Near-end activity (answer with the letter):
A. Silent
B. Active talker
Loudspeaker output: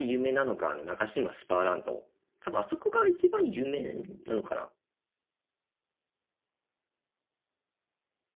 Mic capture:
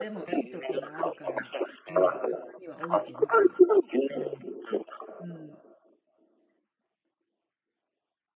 B